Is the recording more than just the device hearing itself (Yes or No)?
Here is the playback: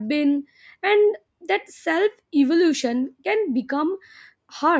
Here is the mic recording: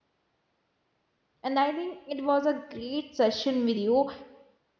Yes